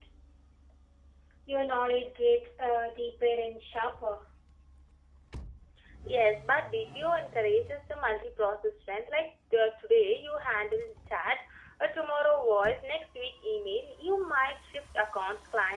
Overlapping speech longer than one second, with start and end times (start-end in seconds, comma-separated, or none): none